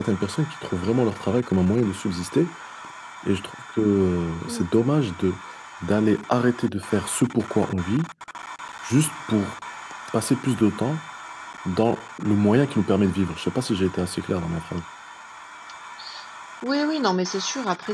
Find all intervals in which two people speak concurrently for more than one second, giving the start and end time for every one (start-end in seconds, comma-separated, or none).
none